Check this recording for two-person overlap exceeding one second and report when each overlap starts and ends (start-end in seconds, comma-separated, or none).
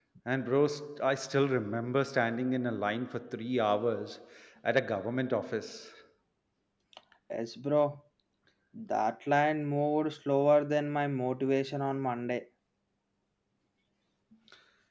none